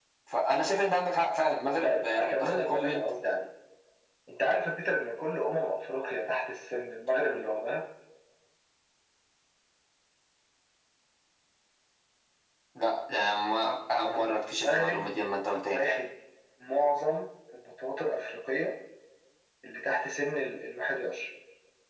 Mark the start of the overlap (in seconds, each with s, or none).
1.8 s